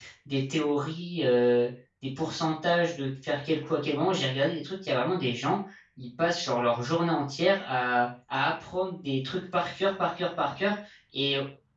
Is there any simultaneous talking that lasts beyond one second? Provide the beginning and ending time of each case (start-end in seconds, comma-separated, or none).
none